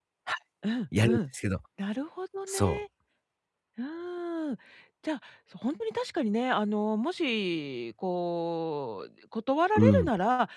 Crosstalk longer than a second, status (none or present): none